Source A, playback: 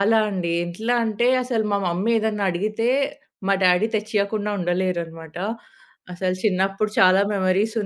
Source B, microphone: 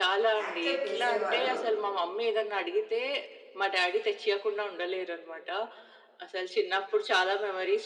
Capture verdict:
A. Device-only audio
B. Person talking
B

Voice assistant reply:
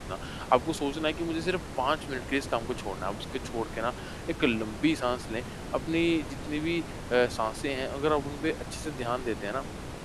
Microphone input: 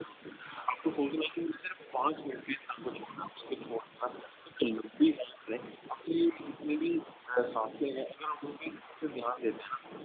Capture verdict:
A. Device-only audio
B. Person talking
A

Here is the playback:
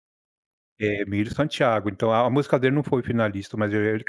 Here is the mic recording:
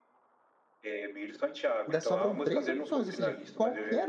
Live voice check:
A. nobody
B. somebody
B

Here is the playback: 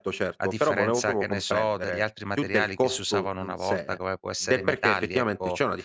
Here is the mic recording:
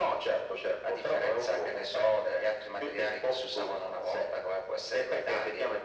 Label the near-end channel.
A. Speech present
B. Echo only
B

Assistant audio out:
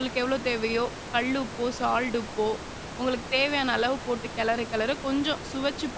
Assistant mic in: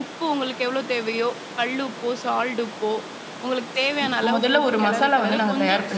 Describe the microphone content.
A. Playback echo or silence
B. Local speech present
B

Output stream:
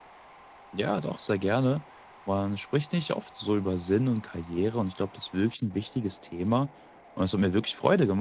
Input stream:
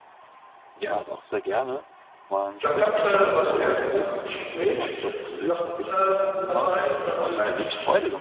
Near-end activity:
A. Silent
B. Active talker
B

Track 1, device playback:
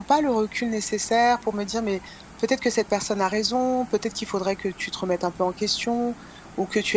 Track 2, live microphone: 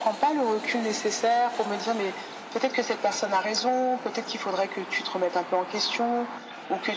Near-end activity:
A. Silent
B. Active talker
A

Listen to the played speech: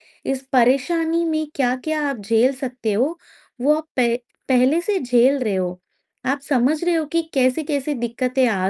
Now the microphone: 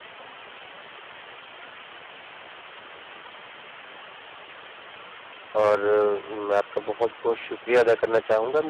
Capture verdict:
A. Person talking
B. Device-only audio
A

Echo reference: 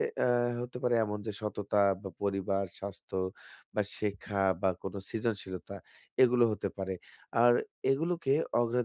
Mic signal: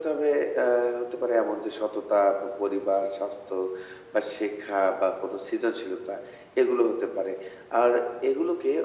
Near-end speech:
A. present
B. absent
B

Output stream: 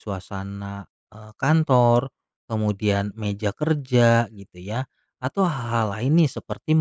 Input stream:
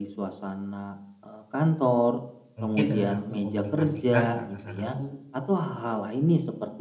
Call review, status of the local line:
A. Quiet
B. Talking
B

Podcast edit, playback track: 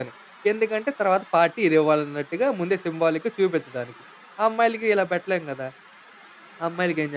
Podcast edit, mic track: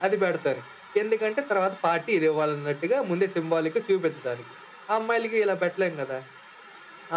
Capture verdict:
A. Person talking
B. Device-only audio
B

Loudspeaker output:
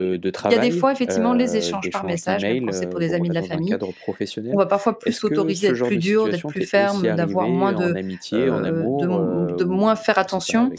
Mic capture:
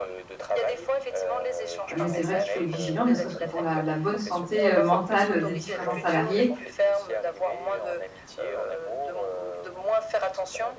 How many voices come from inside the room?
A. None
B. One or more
B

